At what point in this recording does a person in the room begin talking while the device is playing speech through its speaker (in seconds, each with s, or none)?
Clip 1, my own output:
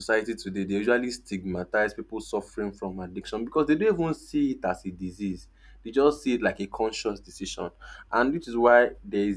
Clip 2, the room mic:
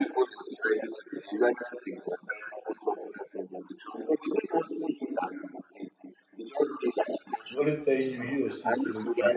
7.5 s